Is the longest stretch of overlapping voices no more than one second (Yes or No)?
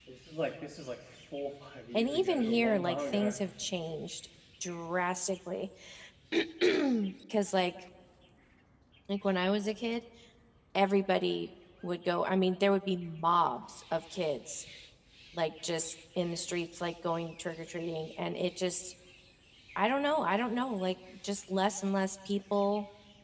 No